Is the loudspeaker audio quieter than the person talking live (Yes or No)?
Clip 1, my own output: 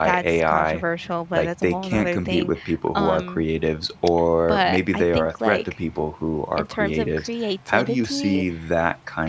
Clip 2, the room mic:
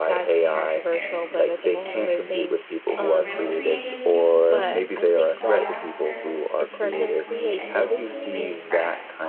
No